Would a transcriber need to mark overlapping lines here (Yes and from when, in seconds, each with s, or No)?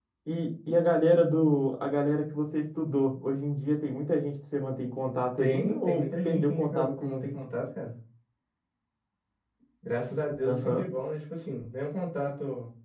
Yes, from 5.4 s